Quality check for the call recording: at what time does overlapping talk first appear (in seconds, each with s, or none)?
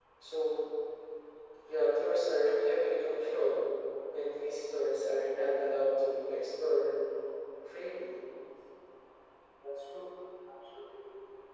none